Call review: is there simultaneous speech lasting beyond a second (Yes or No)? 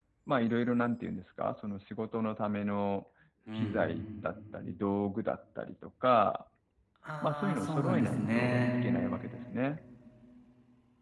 Yes